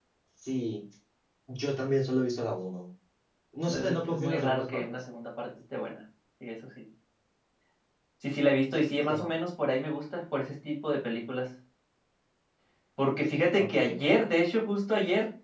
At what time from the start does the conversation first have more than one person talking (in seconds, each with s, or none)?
3.7 s